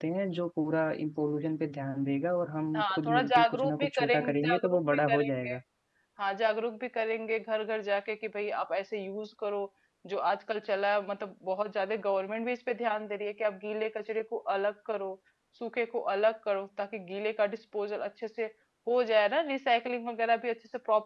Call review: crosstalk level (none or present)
present